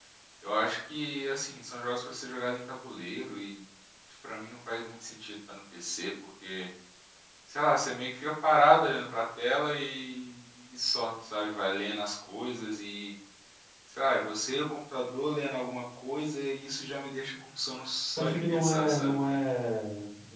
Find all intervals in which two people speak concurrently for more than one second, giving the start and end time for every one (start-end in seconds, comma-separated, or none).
18.1-19.4